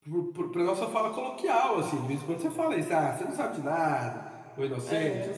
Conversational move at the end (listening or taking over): listening